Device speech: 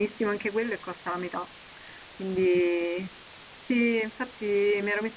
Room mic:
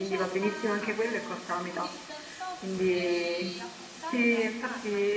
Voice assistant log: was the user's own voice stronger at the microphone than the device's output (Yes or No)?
No